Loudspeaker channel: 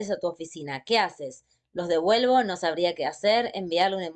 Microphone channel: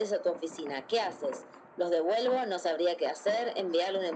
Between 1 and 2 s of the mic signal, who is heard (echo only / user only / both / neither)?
echo only